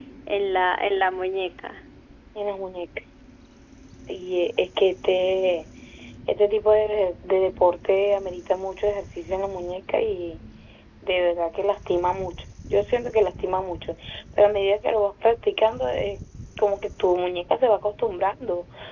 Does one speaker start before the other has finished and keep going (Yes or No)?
No